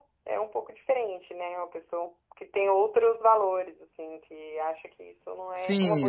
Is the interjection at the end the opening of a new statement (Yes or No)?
Yes